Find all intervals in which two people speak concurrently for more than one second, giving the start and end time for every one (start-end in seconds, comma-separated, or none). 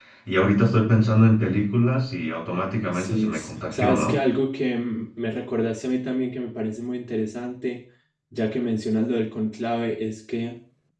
2.9-4.2